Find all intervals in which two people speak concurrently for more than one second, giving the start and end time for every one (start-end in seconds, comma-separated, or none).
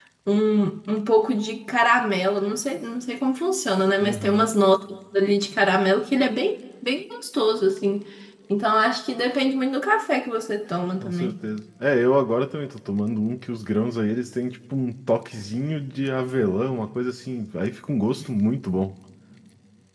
none